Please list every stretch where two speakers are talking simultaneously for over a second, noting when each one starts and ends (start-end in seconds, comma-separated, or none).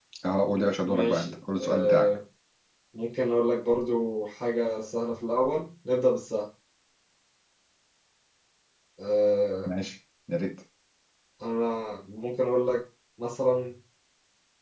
0.8-2.1